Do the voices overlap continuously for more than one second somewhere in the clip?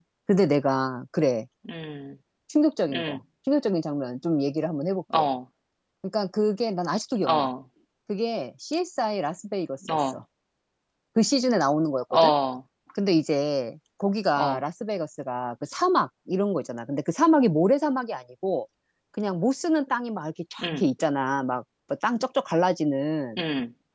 No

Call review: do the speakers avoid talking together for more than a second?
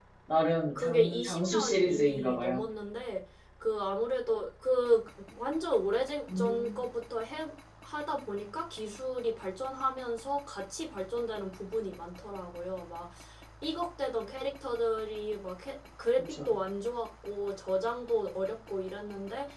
No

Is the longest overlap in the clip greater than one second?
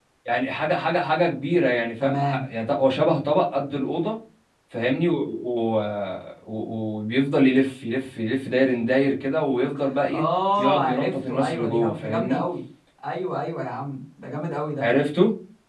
Yes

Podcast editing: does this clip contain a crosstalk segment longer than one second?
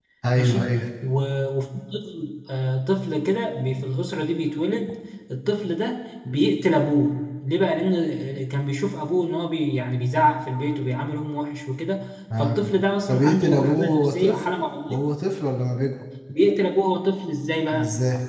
Yes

